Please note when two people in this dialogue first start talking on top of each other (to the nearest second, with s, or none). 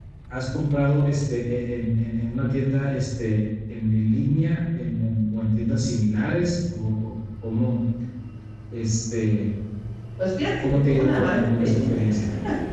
11 s